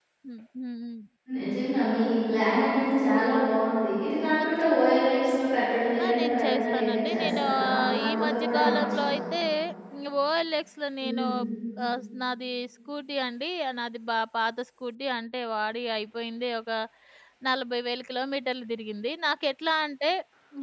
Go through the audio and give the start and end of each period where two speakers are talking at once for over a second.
6.0-9.2

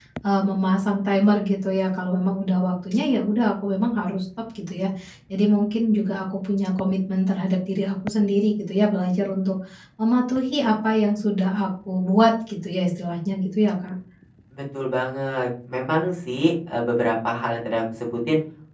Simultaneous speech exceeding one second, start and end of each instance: none

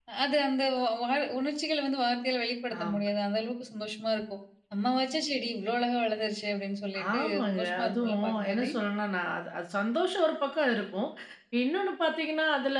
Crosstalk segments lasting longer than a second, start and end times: 7.1-8.7

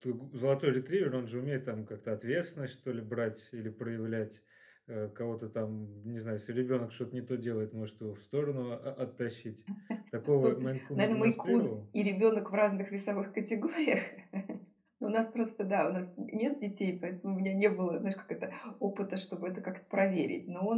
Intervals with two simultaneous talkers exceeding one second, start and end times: 10.4-11.7

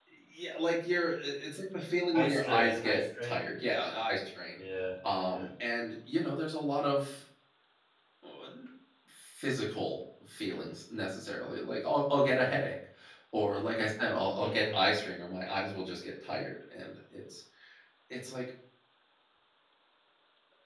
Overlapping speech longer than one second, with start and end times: 2.1-3.4

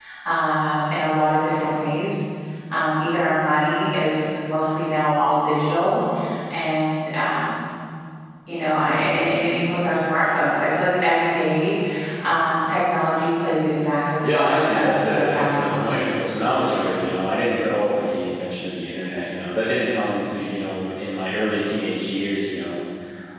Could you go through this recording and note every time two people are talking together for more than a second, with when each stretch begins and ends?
14.3-16.3

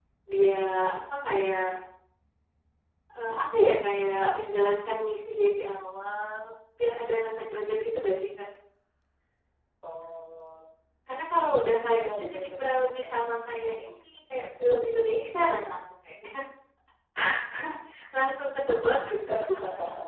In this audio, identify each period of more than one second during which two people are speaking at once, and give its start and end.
11.8-13.0

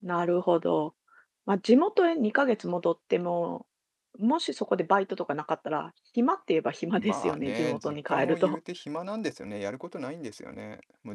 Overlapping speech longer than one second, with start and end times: 6.9-8.6

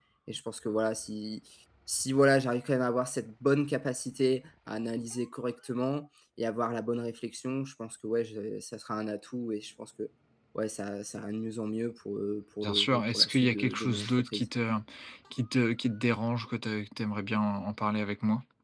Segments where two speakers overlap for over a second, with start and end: 12.6-14.4

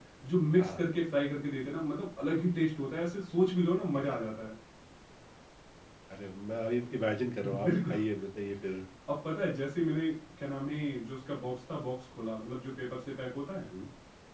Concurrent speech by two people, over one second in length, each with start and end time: none

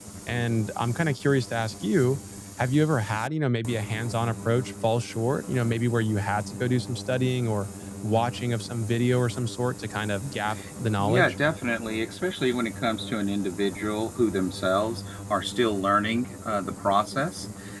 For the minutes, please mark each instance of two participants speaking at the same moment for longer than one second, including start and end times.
none

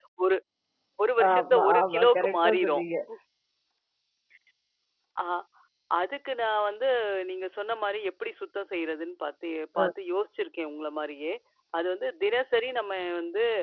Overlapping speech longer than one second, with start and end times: 1.3-2.8

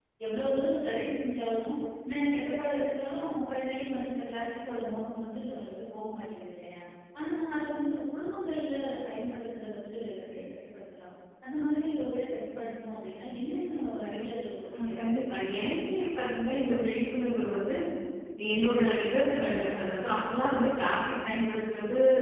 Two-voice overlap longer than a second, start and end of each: 14.7-16.0

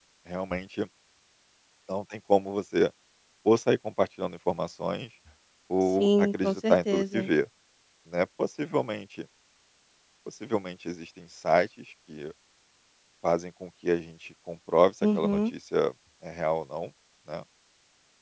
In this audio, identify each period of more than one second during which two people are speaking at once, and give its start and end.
6.0-7.3

